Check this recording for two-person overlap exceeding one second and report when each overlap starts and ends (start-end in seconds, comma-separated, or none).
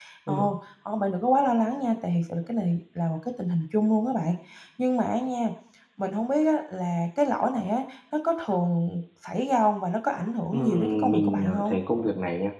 10.5-11.8